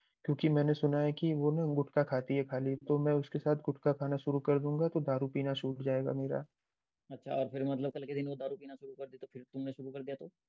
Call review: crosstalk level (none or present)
none